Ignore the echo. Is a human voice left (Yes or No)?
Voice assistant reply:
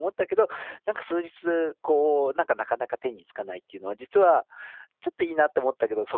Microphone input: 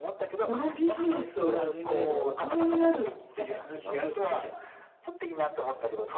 Yes